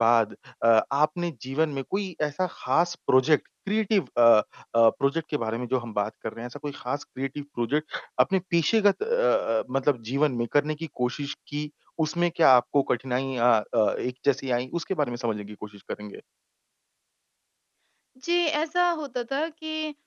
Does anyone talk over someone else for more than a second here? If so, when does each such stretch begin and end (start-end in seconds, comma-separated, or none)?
none